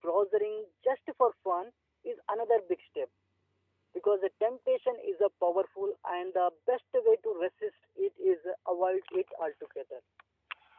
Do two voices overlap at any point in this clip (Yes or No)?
No